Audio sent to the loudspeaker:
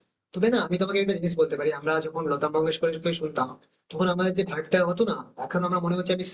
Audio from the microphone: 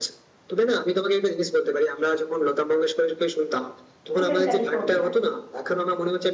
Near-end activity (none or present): present